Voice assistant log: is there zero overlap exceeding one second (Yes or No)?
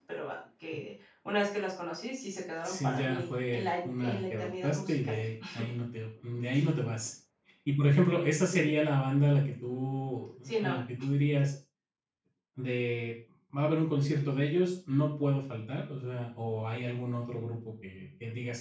No